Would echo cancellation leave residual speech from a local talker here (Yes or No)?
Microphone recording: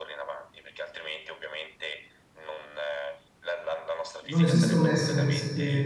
Yes